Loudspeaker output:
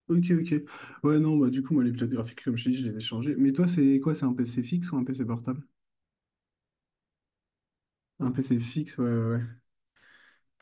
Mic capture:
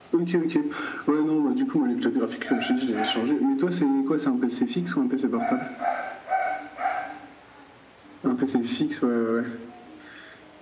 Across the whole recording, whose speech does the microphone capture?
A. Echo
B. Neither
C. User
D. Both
A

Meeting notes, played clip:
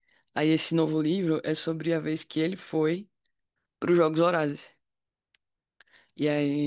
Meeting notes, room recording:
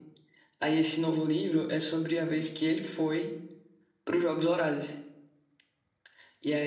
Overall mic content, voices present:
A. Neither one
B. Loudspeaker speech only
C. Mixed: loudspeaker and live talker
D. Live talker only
B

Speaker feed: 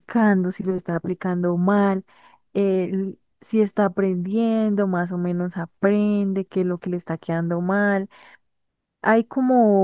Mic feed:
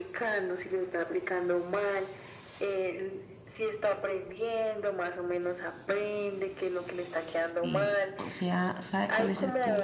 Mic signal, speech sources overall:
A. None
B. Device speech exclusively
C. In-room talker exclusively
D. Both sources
D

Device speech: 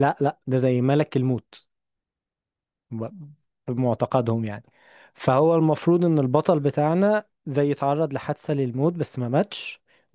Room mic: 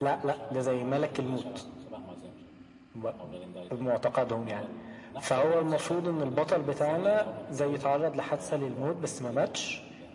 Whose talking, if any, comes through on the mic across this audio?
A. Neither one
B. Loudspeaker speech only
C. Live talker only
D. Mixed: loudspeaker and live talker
D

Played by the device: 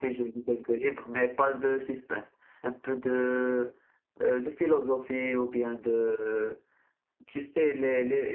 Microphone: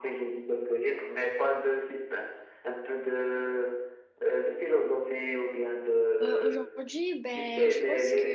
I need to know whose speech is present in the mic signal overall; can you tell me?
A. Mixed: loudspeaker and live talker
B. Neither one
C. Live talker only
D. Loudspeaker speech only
A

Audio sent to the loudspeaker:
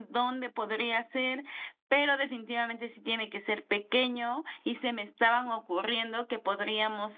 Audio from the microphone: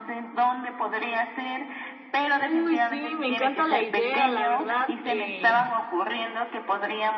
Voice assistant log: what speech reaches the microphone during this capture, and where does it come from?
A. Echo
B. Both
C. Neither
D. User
B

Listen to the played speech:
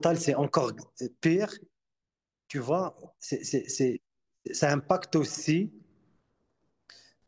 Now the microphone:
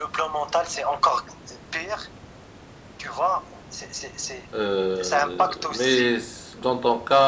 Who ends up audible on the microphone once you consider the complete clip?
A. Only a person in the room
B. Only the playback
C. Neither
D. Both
D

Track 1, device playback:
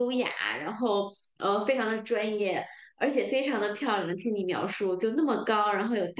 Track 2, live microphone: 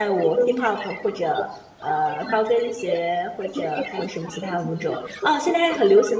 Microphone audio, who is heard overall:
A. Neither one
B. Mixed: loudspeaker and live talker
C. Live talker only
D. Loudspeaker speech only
B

